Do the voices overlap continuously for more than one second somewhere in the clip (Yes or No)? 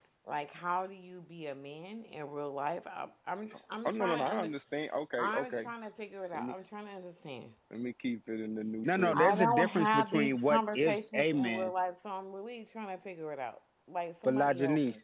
Yes